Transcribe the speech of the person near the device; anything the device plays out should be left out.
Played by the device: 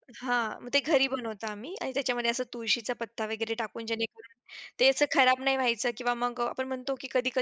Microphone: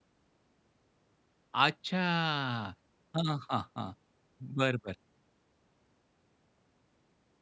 अच्छा. हां, हां, हां. बरं, बरं.

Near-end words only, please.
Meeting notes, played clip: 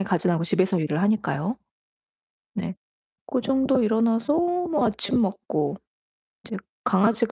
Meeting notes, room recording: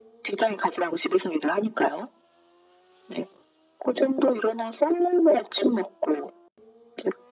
none

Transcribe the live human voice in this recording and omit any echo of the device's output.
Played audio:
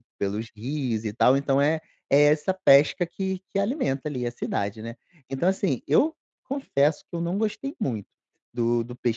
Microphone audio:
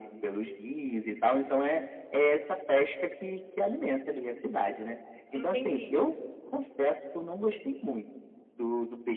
Entendi.

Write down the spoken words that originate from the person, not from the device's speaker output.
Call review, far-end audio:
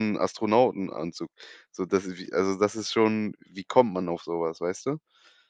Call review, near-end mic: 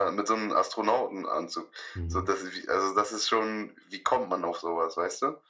Mhm.

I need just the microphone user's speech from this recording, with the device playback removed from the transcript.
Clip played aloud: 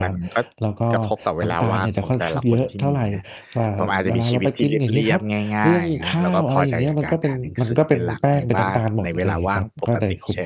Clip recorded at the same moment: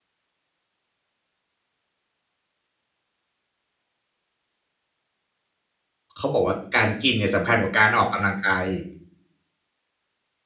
เขาบอกว่าการกินเนี่ยสำคัญกว่าการออกกำลังกายอีก

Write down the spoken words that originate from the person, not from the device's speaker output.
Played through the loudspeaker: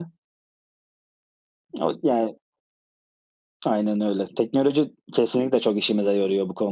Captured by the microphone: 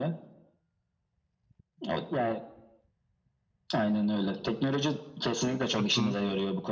Hı hı.

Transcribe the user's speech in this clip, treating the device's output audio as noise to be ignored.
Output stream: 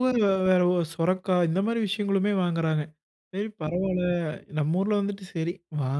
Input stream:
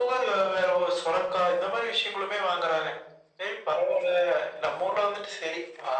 none

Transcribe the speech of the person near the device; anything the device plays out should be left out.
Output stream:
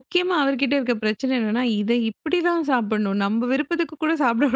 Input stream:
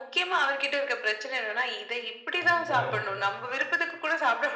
அது முறை.

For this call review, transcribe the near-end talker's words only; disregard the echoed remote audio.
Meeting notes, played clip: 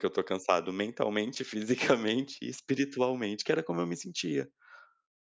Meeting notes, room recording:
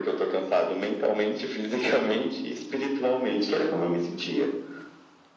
none

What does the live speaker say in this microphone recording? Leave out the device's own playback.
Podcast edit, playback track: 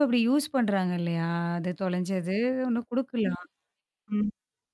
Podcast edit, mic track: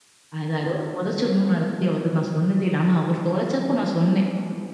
அது அதோட புதைச்சரணும்னு அத பத்தி அவர்ட்ட நான் சொன்னதே இல்ல. ஆனா அவர் தொலைச்சப்ப நான் சொன்னேன்.

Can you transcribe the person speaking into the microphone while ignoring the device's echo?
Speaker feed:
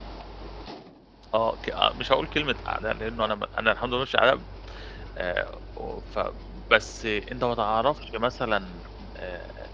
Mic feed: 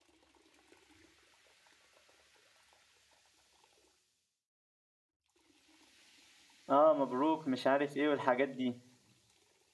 آه، مبروك، مش عارف إيه والحاجات دي.

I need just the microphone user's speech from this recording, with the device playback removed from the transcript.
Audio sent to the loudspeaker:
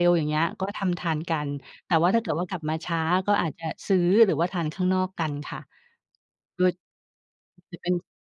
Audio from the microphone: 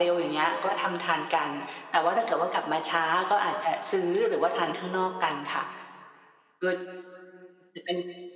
none

